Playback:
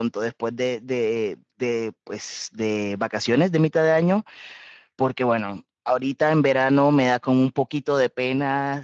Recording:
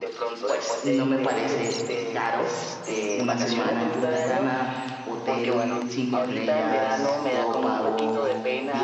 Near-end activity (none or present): present